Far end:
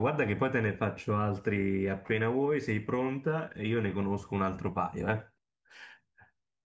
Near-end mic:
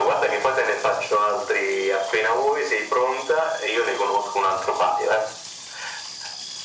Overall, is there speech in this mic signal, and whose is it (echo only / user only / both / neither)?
echo only